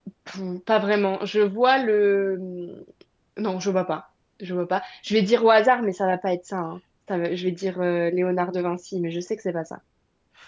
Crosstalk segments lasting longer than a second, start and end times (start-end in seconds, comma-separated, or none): none